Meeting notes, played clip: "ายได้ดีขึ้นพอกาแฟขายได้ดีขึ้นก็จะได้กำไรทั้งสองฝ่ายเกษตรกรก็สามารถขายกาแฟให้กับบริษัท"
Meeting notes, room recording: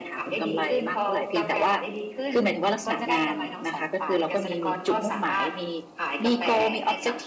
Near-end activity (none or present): present